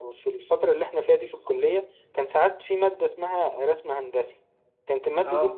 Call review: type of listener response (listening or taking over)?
listening